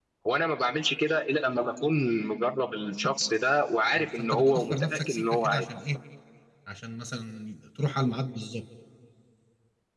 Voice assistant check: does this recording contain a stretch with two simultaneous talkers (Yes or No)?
Yes